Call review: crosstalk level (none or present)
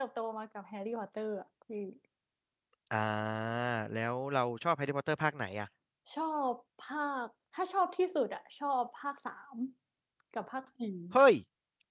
none